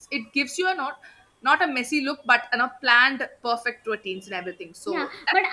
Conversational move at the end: taking over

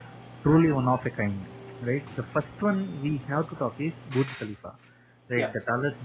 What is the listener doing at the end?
listening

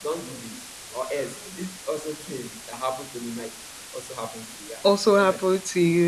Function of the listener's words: taking over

